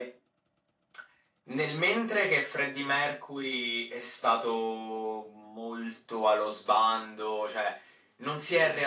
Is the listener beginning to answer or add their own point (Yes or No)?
No